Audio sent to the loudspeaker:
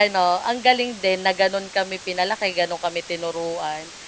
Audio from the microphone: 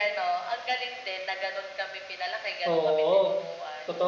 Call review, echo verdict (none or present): present